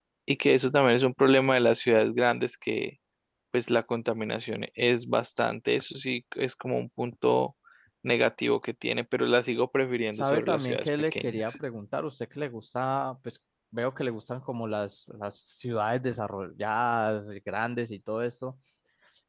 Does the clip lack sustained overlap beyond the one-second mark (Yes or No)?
No